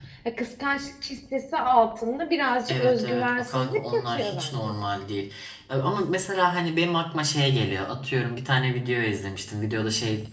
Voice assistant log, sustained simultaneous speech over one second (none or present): present